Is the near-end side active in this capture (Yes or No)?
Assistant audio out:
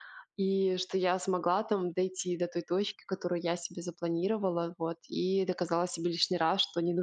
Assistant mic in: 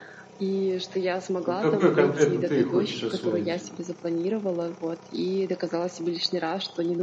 Yes